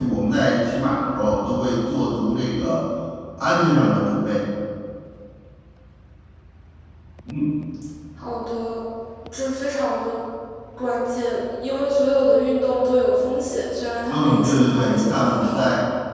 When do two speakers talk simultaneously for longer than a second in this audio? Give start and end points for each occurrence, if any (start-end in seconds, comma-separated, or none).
14.1-15.6